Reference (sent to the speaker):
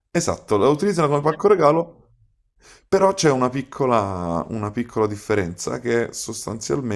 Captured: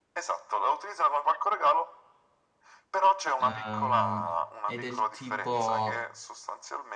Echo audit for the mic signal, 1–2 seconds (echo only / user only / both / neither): echo only